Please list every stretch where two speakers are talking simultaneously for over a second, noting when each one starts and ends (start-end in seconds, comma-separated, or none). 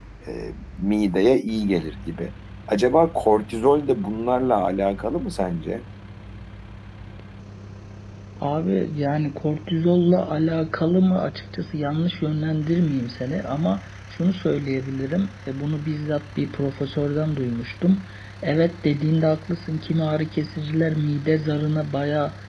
none